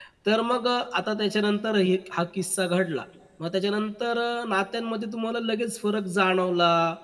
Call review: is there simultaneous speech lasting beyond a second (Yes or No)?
No